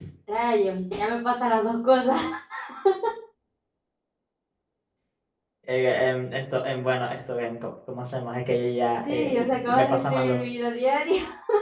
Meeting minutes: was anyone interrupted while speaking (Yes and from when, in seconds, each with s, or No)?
Yes, from 9.0 s